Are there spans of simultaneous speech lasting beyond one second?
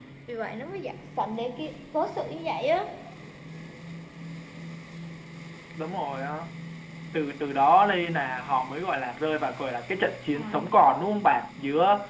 No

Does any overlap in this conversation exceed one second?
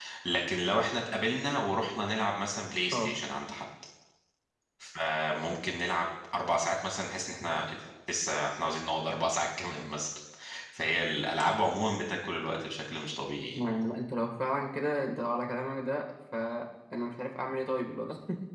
No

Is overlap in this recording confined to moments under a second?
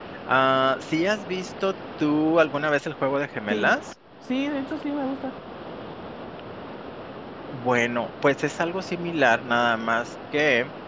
Yes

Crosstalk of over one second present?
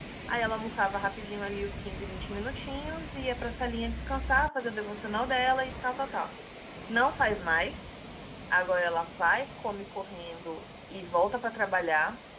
No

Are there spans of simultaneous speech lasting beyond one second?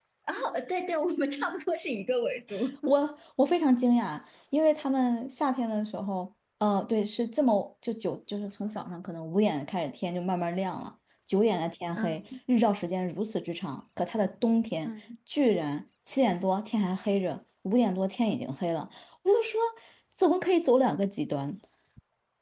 No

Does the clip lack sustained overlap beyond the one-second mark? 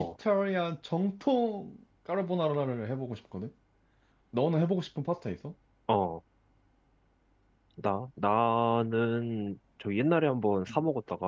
Yes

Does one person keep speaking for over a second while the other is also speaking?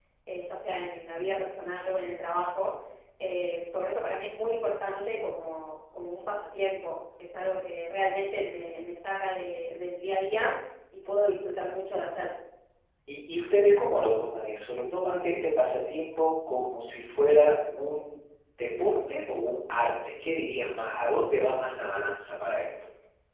No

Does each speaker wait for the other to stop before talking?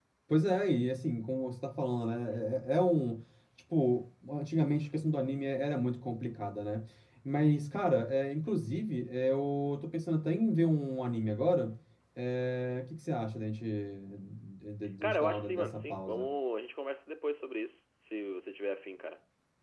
No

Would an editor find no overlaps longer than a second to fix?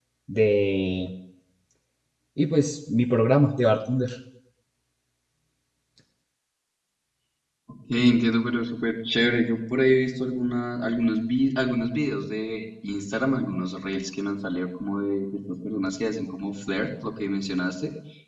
Yes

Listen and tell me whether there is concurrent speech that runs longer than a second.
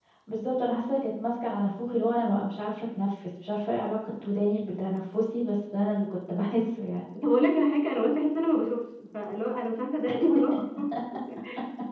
No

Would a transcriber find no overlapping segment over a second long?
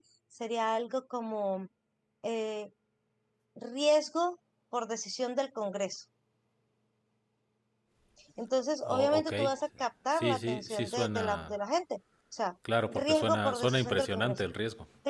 No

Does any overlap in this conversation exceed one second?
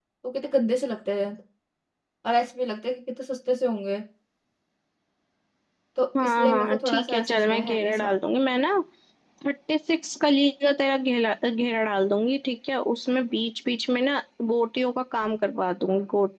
Yes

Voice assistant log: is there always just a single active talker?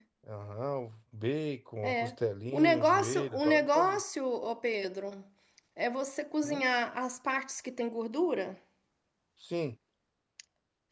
No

